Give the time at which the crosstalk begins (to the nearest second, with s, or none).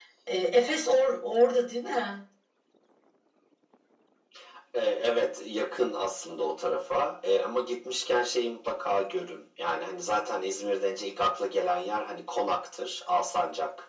none